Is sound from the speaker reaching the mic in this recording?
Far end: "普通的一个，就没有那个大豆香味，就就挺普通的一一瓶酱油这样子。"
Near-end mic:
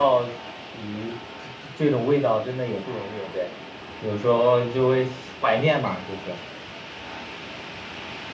No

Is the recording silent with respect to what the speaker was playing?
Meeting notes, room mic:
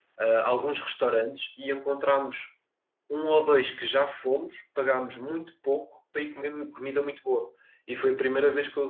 Yes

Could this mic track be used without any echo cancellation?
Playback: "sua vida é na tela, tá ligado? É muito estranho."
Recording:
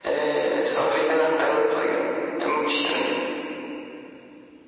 No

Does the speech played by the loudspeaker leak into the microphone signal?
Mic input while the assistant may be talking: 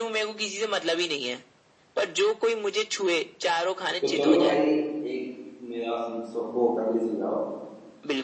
Yes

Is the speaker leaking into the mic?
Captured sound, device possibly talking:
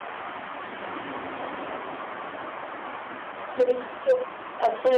No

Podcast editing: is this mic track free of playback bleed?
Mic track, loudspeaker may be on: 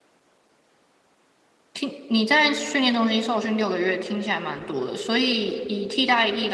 Yes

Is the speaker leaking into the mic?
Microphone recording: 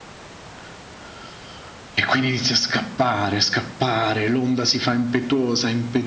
Yes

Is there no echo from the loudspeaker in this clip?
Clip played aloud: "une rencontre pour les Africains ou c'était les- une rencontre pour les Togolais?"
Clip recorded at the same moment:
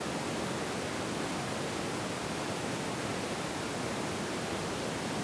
Yes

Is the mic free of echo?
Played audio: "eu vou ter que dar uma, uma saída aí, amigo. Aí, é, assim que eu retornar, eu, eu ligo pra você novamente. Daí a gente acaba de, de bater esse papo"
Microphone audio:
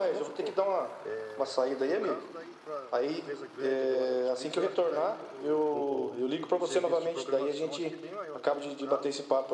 No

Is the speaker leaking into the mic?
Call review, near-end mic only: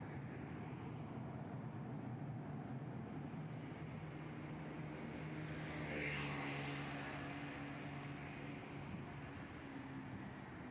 No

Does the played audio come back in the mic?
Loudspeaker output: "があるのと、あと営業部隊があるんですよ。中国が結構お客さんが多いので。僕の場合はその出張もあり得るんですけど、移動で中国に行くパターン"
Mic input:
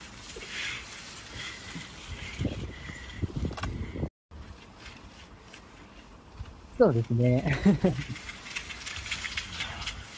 No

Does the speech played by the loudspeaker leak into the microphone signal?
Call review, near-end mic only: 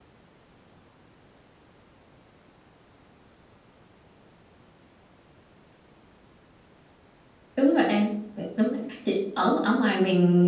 No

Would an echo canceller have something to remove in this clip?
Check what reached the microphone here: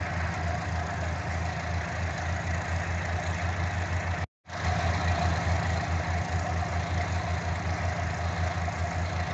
No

